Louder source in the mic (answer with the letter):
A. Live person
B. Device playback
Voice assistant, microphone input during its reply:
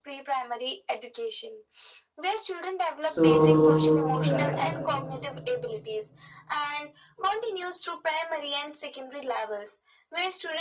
A